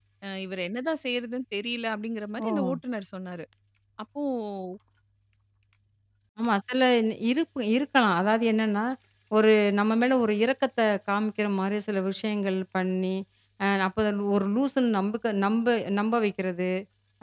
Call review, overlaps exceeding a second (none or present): none